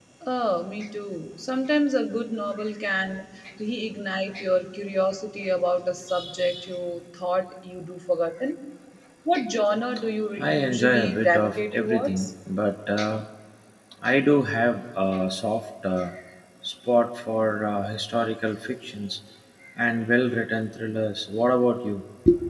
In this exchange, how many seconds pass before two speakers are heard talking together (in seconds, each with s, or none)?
10.4 s